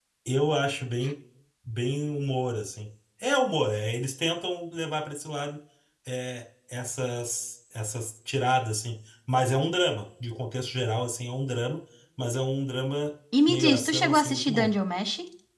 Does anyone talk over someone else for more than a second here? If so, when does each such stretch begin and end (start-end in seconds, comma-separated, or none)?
13.5-14.7